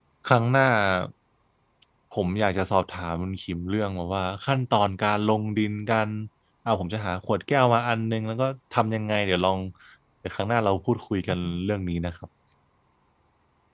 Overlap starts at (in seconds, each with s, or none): none